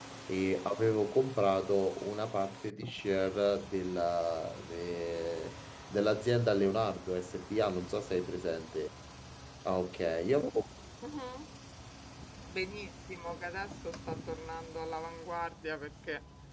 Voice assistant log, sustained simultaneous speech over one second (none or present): none